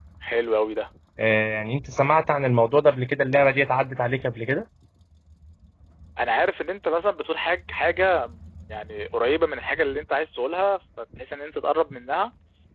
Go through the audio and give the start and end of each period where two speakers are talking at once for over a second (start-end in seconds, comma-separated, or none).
none